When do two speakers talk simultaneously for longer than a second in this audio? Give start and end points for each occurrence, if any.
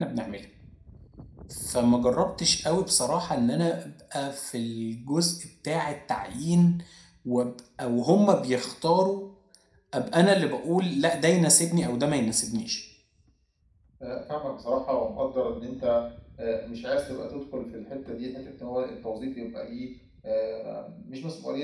none

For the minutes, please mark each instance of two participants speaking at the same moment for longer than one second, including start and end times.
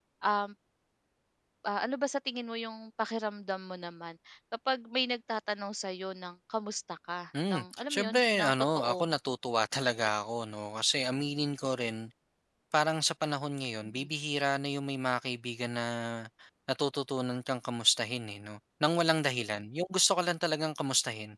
7.5-9.1

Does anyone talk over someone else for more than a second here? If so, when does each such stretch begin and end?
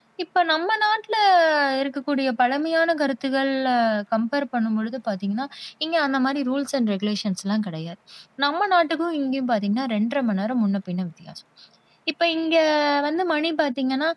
none

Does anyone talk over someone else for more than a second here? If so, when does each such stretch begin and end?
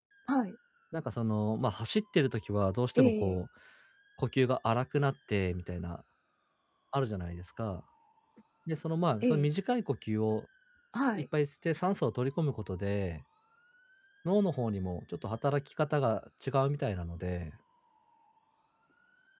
none

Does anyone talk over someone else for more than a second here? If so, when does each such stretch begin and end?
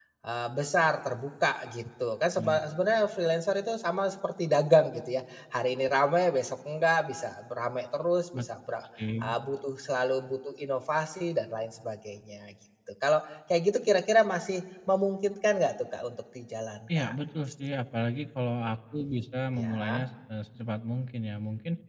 none

